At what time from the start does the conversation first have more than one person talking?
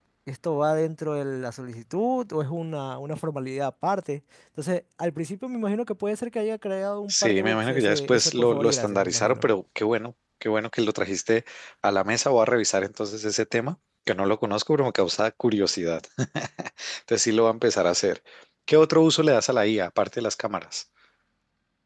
7 s

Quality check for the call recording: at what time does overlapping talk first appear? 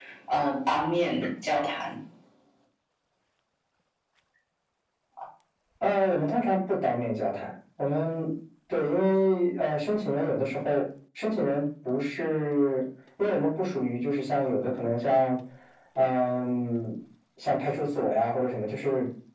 none

